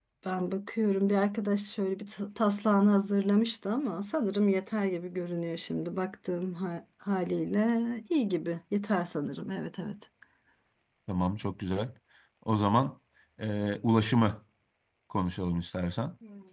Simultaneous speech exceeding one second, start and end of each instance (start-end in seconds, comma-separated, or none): none